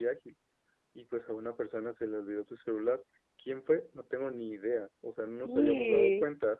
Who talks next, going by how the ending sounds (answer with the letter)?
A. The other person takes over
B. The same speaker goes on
B